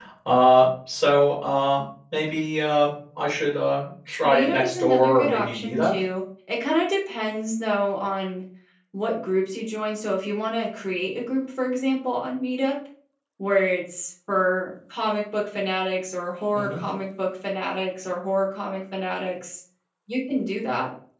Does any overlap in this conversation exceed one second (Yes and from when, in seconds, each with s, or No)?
Yes, from 4.2 s